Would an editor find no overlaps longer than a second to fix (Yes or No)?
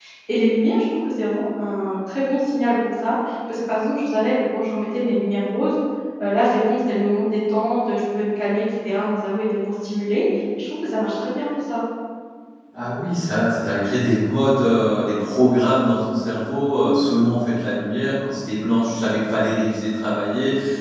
Yes